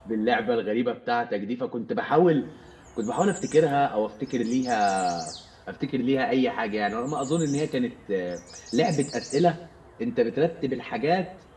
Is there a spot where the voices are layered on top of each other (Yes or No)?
No